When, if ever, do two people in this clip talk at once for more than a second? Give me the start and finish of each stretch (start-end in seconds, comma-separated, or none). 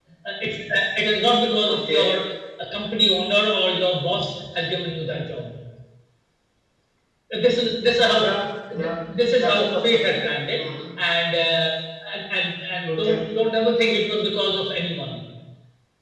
9.4-10.6